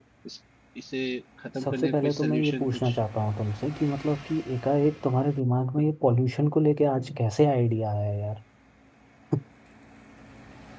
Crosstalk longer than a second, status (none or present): present